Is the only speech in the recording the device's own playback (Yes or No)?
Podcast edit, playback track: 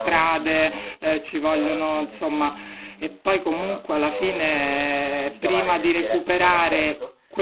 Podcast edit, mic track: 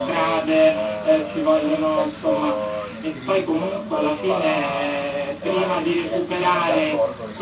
No